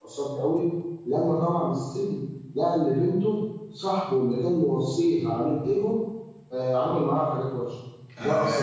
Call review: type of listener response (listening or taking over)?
taking over